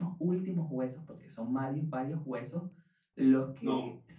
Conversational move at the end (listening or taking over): listening